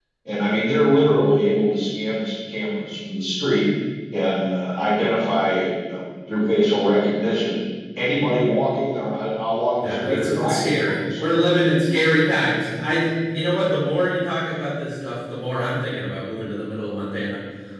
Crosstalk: present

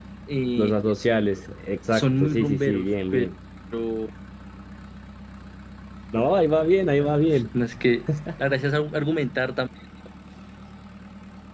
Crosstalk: present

